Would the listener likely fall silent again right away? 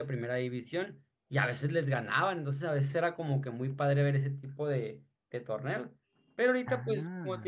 Yes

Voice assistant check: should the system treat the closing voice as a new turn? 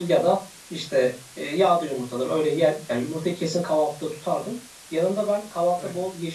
No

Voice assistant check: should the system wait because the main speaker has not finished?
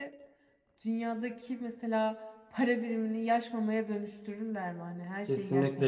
No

